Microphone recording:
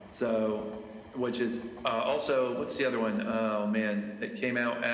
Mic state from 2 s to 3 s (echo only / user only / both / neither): echo only